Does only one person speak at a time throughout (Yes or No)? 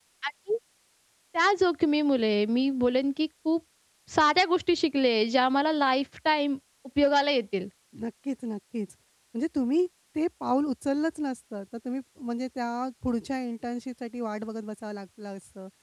Yes